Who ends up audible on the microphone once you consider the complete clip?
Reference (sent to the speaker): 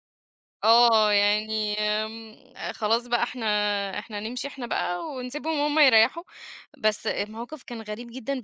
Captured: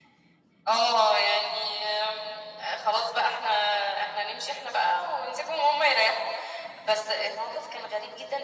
echo only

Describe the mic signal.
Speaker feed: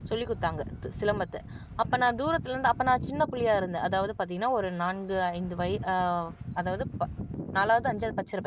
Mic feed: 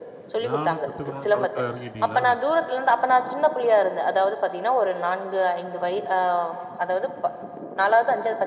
both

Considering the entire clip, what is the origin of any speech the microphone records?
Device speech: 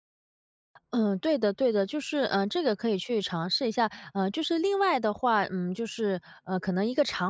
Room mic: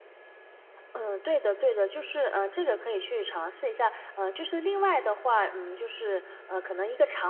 echo only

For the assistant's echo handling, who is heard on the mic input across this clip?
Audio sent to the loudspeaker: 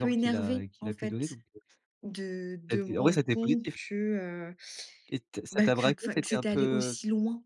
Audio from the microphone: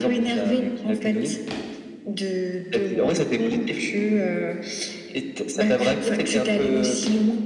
echo only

